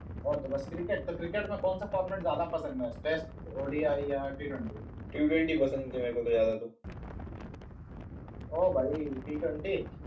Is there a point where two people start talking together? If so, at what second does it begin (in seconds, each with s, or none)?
none